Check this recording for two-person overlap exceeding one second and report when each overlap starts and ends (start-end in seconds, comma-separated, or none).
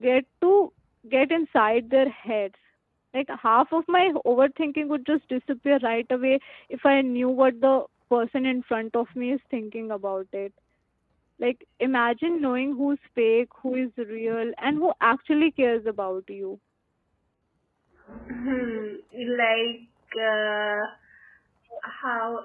none